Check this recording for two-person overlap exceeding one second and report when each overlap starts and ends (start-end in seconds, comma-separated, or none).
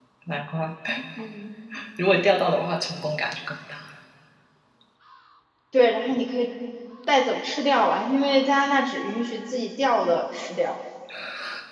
none